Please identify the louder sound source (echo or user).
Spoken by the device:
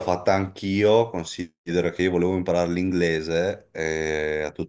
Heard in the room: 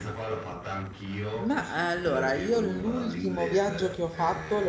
user